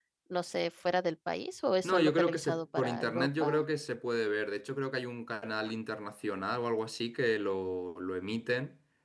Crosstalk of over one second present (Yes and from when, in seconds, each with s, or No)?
Yes, from 1.8 s